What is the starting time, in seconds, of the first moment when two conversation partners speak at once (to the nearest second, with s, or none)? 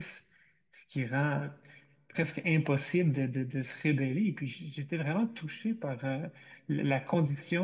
none